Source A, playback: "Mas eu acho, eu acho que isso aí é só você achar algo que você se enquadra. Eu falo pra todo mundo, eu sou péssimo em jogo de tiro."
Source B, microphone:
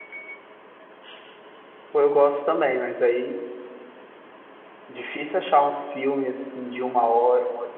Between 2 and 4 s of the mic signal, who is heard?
user only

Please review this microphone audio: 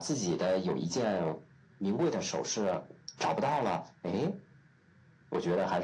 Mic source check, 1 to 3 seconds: echo only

